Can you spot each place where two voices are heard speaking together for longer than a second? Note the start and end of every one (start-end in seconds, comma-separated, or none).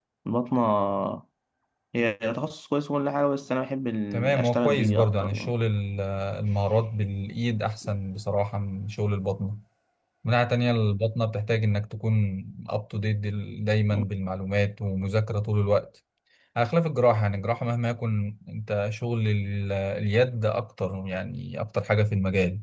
4.1-5.5